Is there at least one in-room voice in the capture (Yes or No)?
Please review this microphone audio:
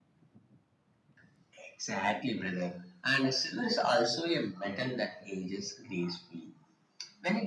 No